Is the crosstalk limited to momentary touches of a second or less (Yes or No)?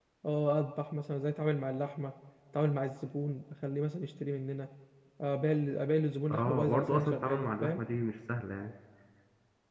No